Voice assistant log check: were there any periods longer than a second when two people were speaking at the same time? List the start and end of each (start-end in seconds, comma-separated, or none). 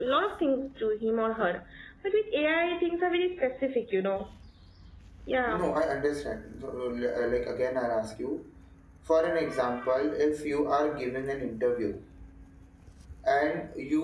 none